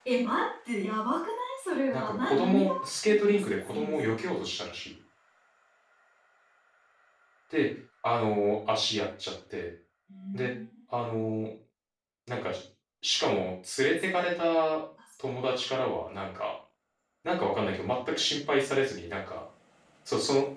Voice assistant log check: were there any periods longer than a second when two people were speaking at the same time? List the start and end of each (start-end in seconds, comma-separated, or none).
1.9-4.3